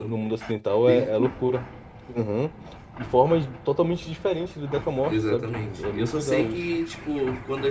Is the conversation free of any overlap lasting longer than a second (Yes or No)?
No